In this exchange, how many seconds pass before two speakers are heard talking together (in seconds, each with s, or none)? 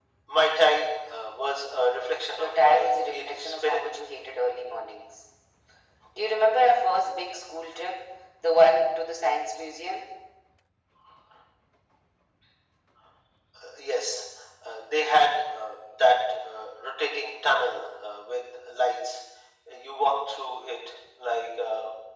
2.4 s